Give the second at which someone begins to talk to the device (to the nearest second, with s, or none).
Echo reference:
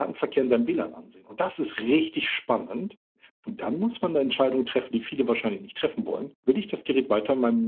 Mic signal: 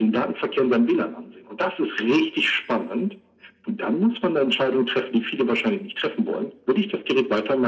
none